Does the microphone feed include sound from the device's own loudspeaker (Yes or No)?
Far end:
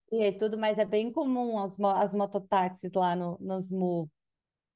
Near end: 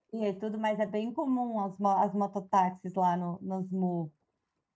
Yes